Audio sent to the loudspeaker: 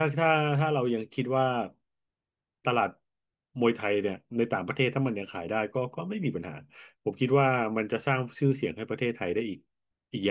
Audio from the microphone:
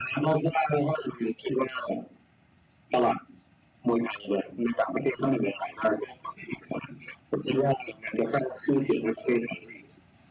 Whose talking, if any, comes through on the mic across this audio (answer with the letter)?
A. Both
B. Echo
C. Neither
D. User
B